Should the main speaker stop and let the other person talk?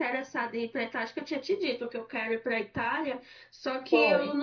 No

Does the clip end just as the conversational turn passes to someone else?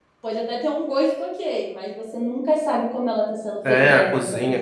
Yes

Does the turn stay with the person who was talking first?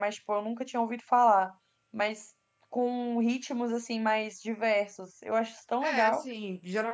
No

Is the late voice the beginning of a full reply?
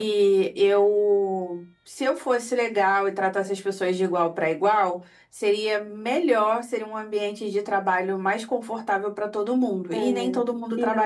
Yes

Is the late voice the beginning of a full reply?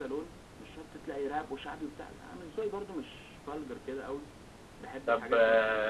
Yes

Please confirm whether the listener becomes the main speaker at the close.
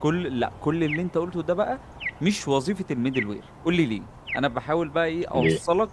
No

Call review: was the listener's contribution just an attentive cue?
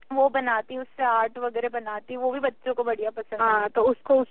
No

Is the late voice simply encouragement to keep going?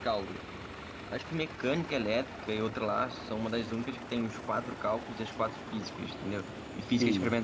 Yes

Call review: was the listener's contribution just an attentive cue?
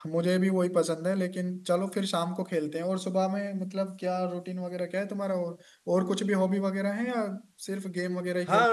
No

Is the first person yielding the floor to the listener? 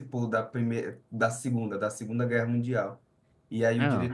No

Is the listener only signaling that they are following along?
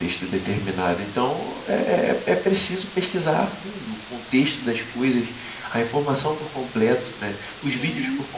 Yes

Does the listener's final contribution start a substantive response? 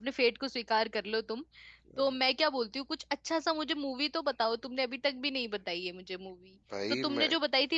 No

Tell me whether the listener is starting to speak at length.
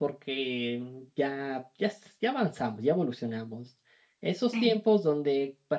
No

